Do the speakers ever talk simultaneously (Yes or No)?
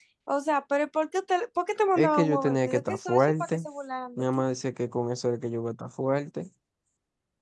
Yes